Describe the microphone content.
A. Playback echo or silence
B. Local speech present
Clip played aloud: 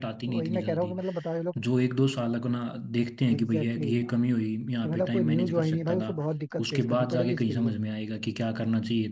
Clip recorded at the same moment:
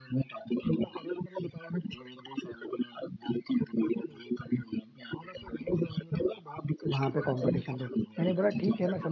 B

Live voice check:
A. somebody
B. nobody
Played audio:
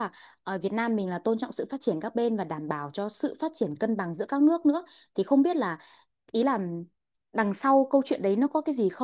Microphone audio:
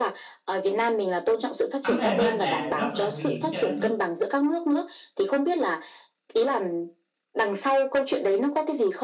A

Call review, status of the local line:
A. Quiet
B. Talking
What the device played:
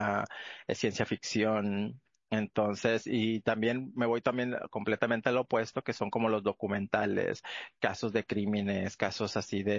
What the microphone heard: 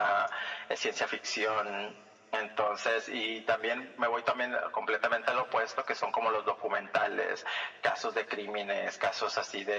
A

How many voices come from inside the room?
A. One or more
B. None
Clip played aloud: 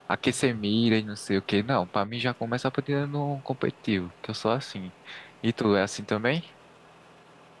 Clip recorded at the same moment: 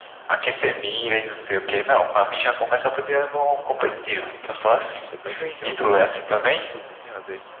A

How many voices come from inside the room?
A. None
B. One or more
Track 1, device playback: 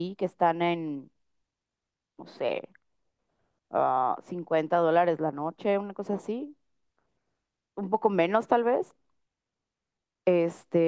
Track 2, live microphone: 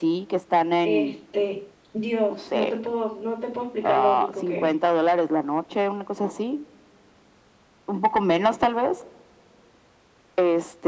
B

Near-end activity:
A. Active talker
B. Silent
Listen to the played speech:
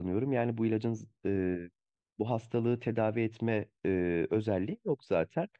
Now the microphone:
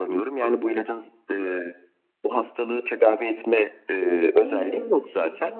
A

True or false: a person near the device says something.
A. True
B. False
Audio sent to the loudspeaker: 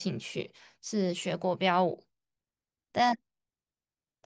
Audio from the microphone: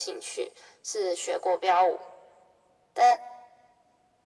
B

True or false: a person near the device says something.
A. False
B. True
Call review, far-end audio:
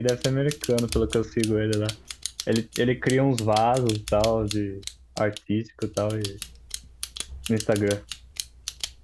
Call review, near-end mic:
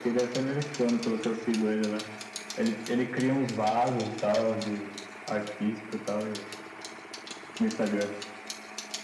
A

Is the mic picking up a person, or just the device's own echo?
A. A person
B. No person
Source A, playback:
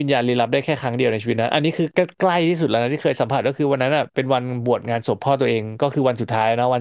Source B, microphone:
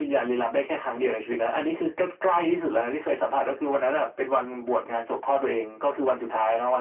B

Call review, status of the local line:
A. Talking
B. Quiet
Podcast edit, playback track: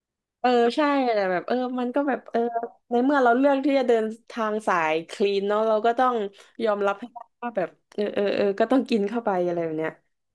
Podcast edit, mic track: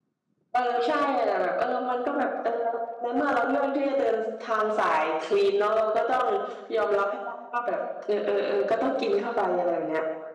B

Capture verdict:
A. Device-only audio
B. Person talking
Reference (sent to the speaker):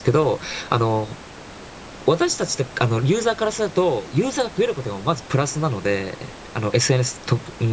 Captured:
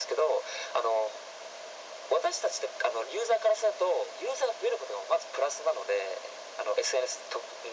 A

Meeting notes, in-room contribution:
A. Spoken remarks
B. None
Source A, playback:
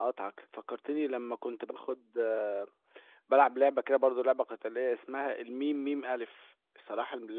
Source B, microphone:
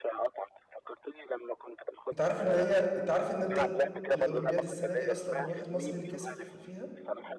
A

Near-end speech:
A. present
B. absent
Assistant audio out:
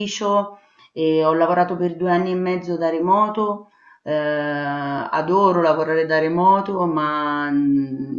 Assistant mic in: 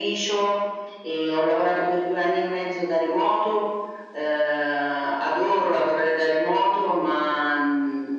B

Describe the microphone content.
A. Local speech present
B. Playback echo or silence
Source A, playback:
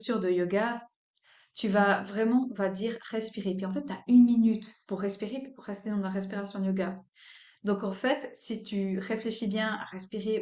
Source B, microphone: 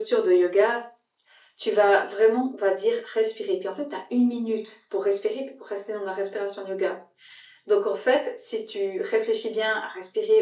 B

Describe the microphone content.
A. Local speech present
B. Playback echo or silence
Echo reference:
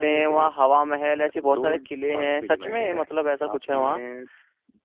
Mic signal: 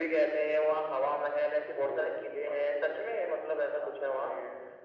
B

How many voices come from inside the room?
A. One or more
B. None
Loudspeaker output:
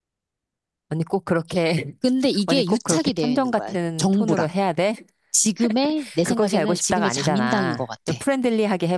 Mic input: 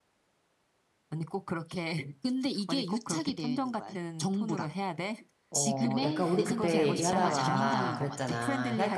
A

